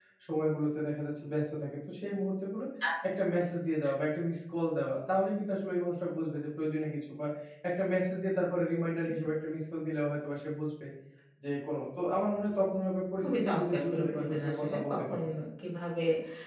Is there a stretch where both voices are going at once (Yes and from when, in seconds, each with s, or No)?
Yes, from 13.2 s